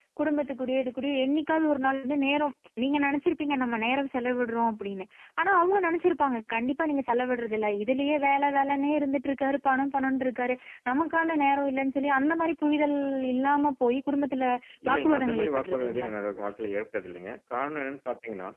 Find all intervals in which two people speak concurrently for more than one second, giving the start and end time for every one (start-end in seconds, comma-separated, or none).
14.9-16.1